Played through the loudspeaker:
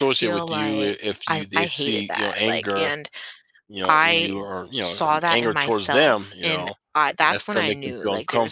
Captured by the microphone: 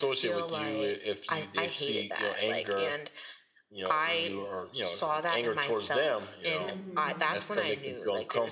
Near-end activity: present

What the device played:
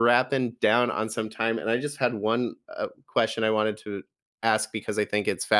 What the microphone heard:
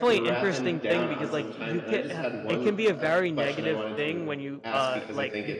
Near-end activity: present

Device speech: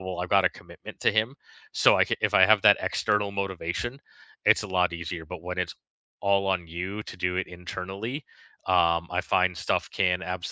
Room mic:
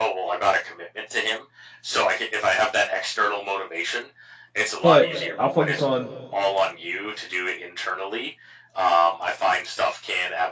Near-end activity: present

